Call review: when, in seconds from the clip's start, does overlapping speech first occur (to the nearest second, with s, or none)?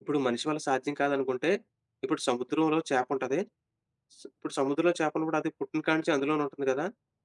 none